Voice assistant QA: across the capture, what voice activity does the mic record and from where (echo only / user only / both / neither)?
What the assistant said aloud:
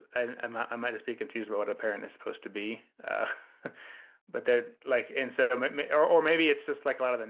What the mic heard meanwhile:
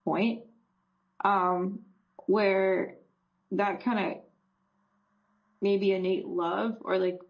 user only